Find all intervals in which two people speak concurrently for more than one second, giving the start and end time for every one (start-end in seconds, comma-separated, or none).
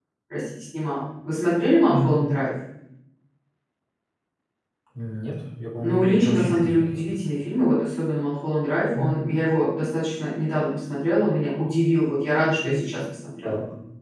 5.8-7.0